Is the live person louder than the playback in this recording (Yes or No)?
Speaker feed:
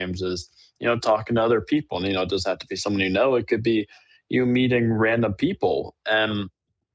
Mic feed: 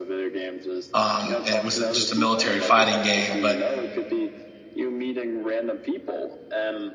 Yes